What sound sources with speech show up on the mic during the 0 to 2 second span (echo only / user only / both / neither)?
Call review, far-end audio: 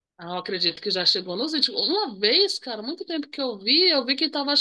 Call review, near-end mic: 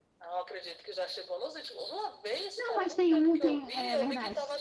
echo only